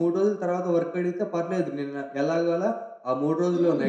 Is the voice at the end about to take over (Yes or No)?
No